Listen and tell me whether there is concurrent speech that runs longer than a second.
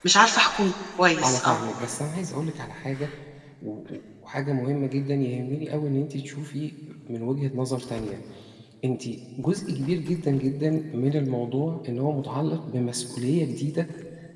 No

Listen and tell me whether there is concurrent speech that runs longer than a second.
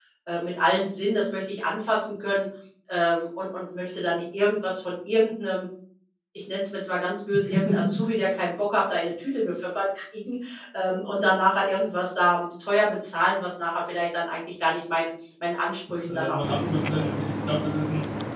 Yes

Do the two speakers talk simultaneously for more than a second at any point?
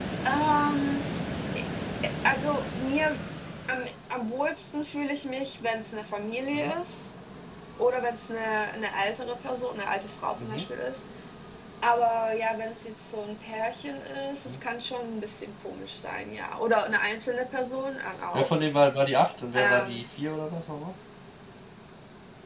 No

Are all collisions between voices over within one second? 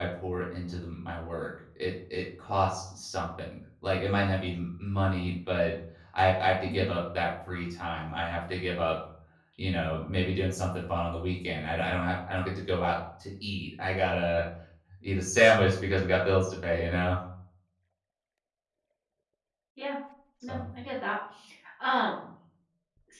Yes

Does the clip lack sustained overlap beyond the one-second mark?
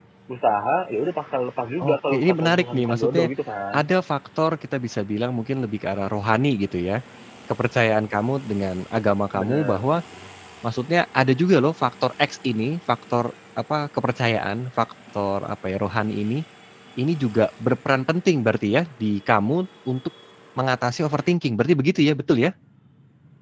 No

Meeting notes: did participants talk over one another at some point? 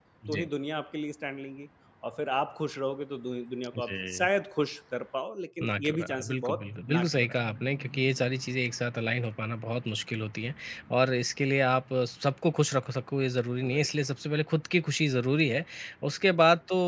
Yes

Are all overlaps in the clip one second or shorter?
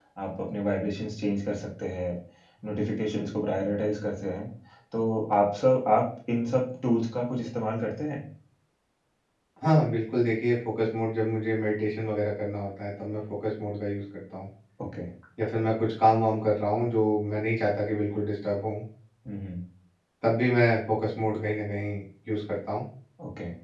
Yes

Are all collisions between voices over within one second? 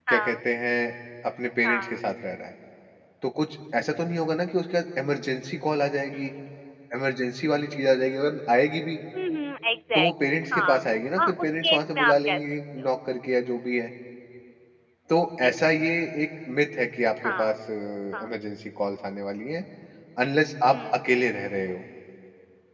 No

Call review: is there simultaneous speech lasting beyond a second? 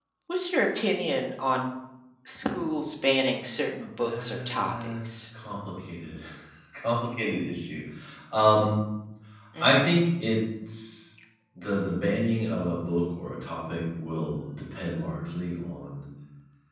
Yes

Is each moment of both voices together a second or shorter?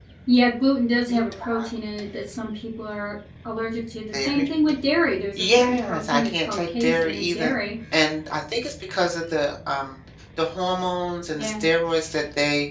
No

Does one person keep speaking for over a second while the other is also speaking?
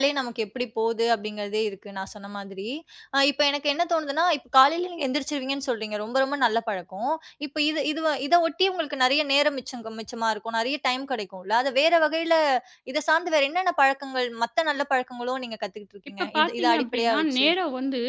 Yes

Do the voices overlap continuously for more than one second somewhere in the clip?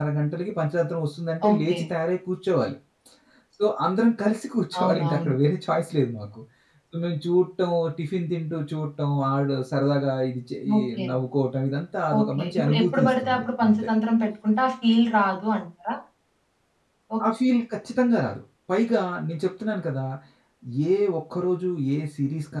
Yes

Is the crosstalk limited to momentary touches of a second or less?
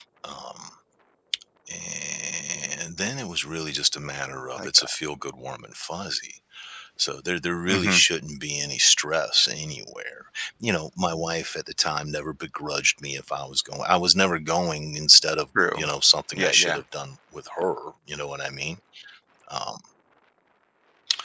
Yes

